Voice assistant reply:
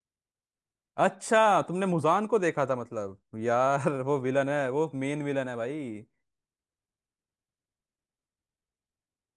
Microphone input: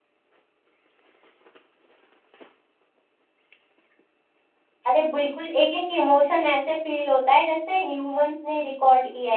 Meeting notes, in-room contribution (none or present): present